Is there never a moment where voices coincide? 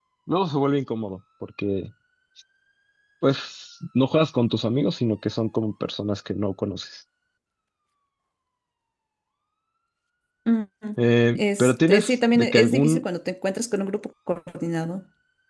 No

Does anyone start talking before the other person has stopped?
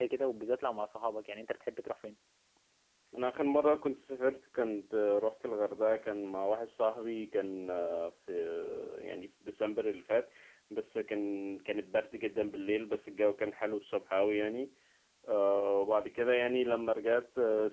No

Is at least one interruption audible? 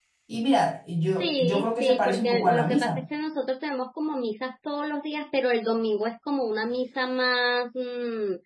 Yes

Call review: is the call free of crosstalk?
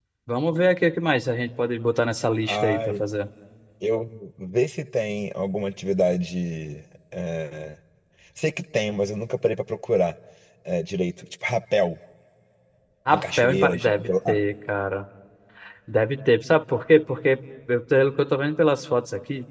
No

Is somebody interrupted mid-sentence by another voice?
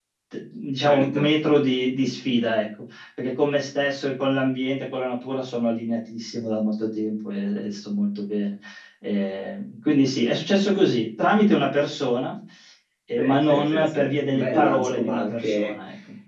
Yes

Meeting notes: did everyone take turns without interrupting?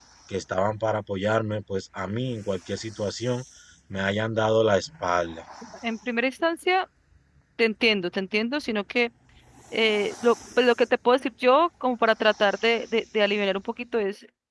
Yes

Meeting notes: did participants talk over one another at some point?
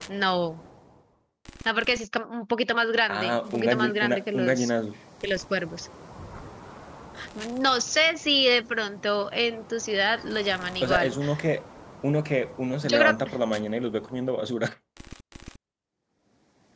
Yes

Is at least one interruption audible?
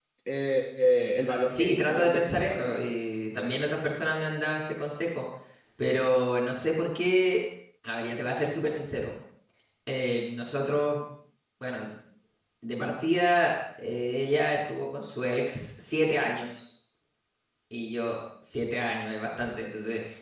Yes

